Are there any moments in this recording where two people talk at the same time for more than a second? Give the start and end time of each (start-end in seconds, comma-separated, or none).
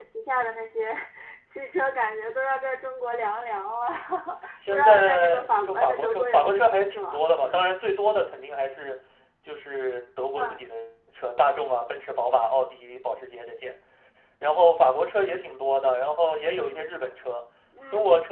4.7-7.2